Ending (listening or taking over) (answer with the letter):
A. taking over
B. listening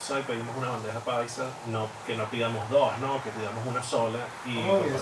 B